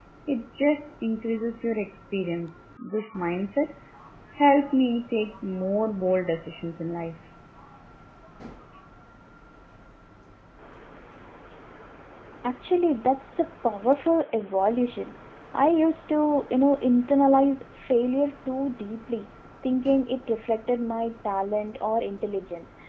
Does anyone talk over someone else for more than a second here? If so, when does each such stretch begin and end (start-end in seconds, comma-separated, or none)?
none